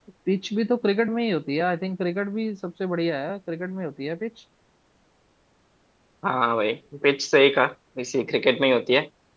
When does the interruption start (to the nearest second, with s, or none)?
none